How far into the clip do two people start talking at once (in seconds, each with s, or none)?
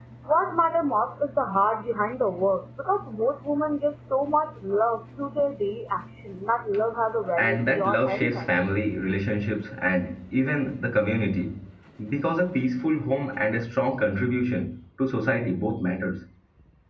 7.4 s